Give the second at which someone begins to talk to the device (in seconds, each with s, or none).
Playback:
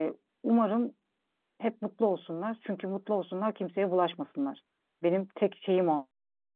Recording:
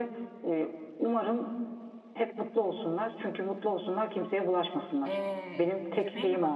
5.0 s